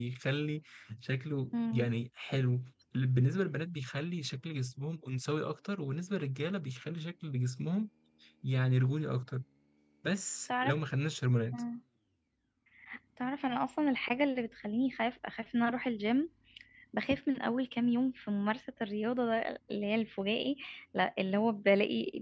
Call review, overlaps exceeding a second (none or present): none